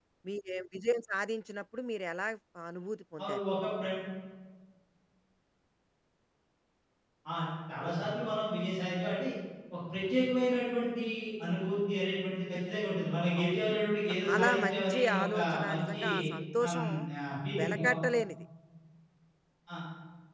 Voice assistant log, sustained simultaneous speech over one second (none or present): present